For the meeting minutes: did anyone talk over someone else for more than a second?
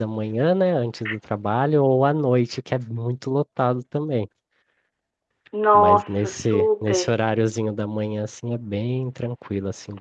Yes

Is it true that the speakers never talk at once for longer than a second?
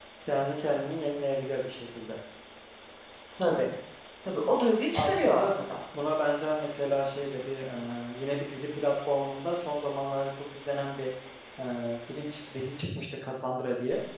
Yes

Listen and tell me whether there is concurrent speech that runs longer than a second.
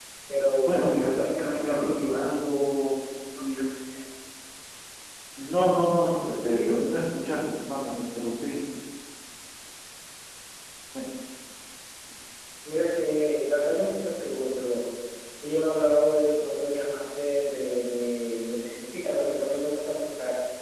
Yes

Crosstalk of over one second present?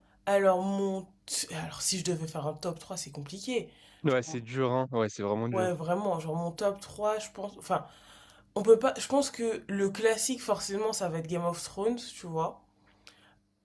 No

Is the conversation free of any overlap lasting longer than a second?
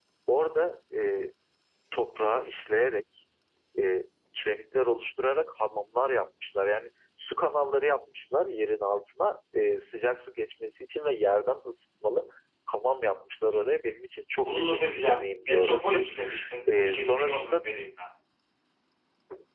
No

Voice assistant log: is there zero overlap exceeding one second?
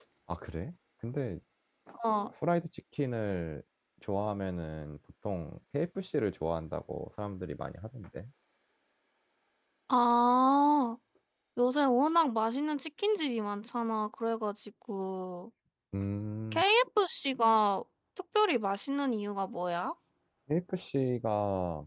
Yes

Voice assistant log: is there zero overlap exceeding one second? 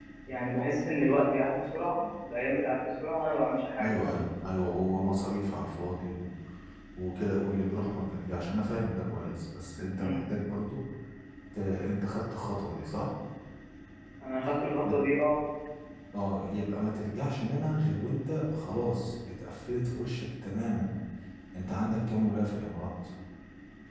Yes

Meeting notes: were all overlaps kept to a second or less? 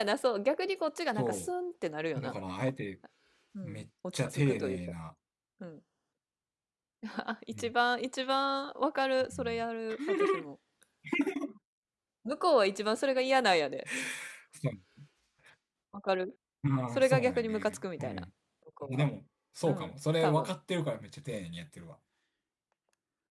No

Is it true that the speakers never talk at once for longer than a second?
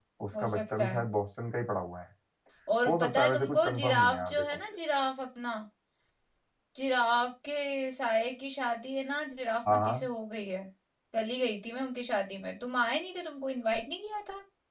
No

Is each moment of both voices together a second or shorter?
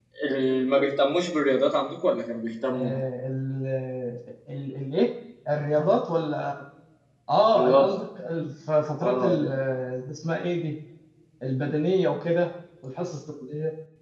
Yes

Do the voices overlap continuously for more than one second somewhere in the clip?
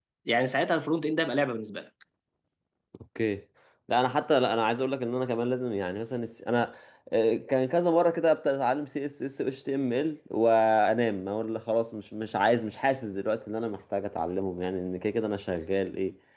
No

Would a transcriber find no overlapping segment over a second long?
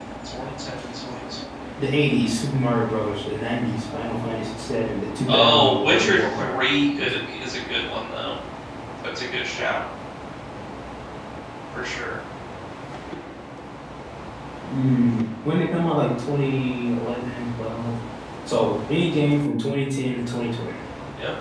No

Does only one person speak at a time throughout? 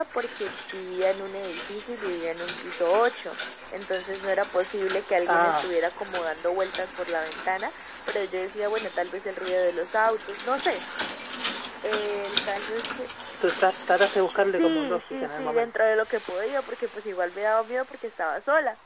No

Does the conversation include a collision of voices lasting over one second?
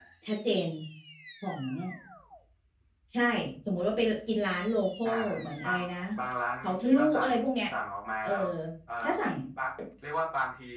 No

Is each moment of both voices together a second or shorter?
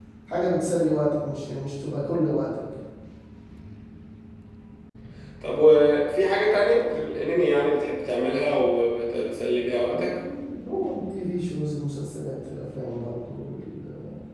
Yes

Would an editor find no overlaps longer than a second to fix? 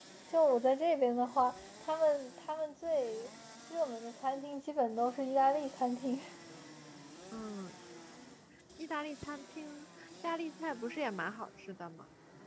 Yes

